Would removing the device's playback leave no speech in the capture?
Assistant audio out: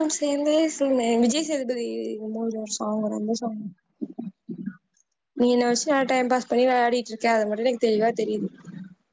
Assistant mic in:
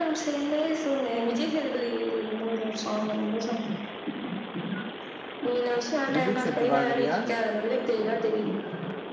No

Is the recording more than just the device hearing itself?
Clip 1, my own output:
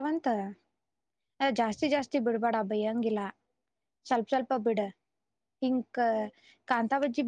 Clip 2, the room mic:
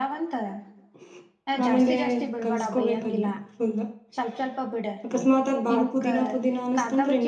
Yes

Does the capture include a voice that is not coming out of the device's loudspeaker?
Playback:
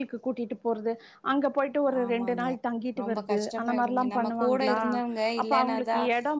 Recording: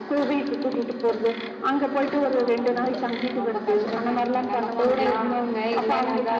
No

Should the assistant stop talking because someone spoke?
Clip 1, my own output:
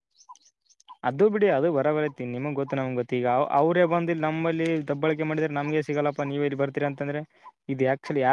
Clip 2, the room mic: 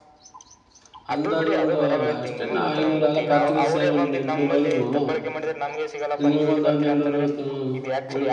Yes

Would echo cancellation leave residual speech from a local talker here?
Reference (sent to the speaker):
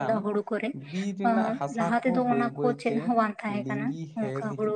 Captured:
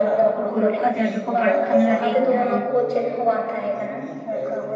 Yes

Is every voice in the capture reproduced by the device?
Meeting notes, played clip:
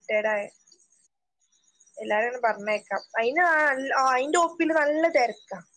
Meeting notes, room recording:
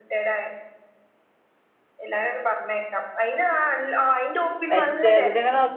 No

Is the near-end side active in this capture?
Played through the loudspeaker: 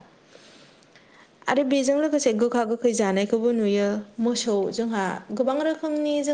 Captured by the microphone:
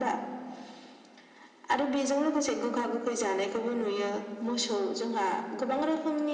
No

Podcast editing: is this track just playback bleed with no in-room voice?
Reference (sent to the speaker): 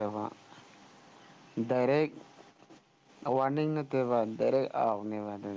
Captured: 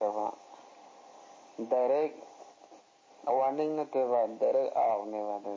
Yes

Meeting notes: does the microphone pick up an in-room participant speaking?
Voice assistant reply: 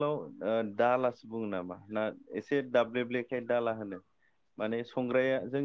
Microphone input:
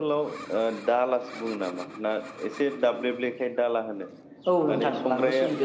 Yes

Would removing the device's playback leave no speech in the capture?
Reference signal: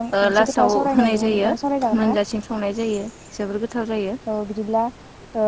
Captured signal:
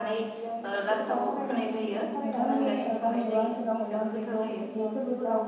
No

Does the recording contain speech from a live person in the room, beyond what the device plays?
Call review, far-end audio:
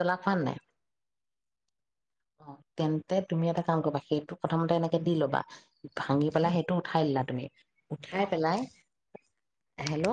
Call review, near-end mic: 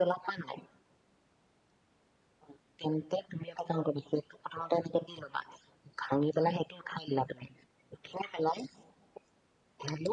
No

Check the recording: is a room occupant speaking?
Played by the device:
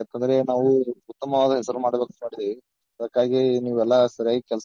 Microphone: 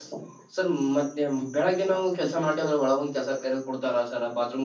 Yes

